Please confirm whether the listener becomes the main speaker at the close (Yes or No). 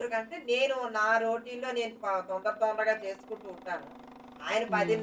No